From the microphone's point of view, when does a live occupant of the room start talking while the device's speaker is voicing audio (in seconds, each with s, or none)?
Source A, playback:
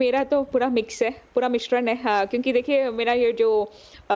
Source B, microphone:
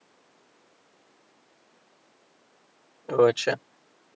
3.1 s